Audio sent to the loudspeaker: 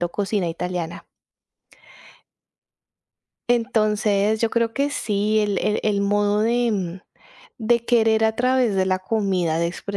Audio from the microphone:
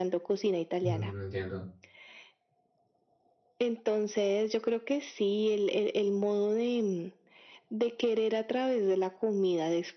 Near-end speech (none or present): present